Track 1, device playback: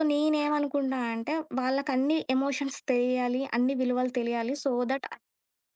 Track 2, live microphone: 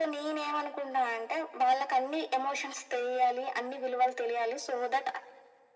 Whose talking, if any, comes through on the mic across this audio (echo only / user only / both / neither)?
echo only